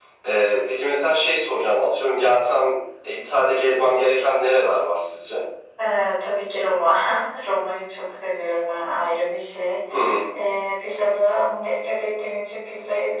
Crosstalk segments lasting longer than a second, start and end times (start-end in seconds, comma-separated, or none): none